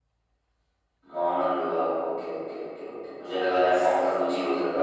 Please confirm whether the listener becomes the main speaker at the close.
No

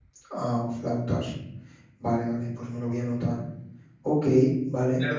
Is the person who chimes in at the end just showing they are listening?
No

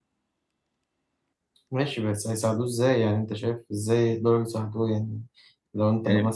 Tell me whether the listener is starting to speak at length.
No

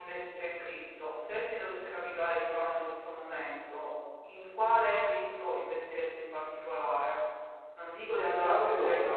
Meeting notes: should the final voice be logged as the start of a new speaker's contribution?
No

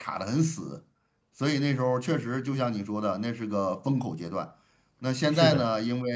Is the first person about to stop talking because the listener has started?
No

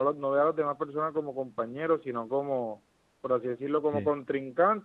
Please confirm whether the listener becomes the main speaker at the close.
No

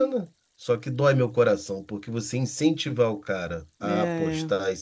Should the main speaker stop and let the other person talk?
No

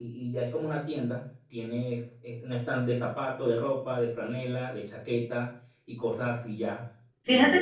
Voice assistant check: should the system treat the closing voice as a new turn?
Yes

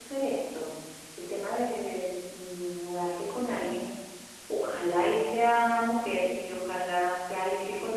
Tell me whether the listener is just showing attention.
Yes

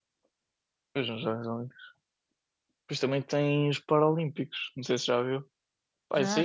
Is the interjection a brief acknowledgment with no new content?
Yes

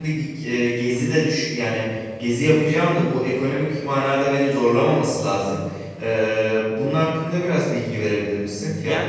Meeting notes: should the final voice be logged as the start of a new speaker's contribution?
Yes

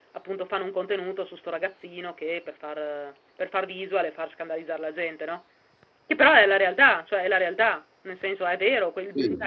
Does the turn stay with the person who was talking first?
Yes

